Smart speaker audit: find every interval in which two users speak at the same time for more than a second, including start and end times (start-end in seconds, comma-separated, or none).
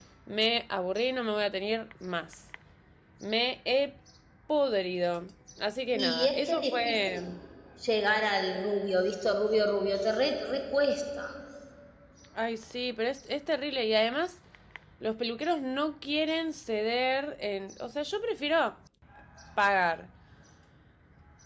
5.9-7.2